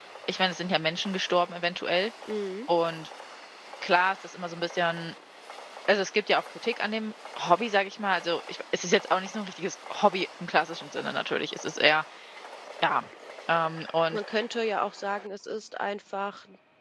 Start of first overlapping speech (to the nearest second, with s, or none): none